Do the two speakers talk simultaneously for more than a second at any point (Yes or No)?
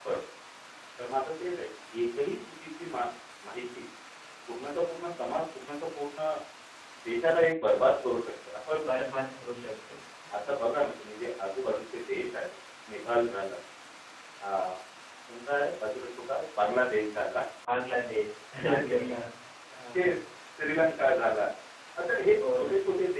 No